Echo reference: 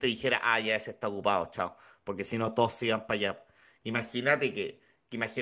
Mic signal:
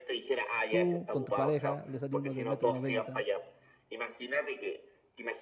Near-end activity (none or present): present